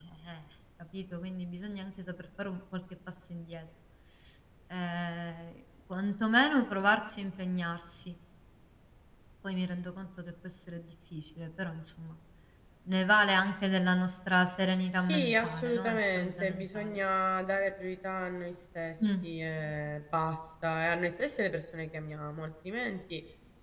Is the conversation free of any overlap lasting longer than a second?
No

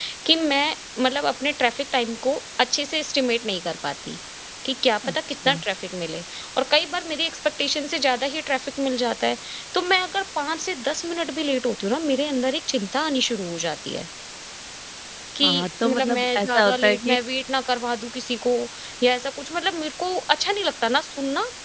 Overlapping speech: Yes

